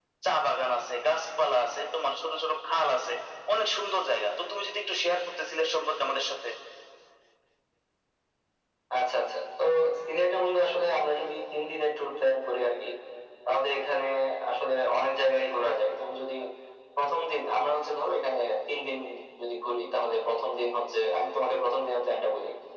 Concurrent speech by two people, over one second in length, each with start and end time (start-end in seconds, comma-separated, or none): none